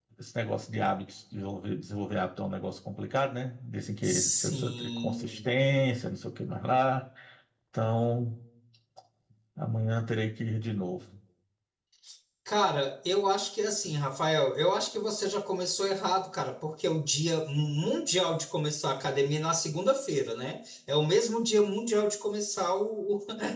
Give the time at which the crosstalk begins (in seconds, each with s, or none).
4.0 s